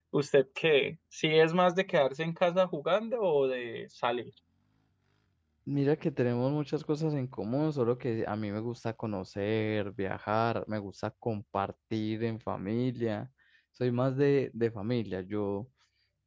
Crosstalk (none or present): none